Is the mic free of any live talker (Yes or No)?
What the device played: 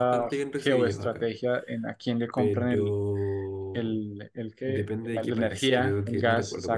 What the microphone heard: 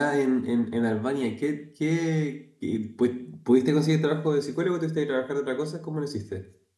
No